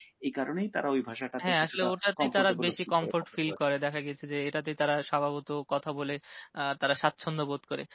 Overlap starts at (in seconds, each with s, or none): 1.4 s